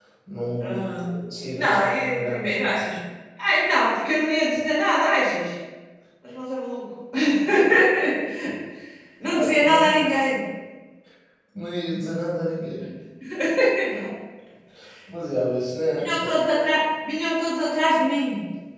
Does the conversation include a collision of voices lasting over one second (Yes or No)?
Yes